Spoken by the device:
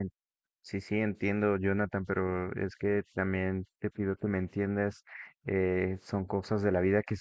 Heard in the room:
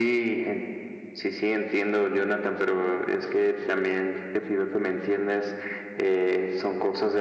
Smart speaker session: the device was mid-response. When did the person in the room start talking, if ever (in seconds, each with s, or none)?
none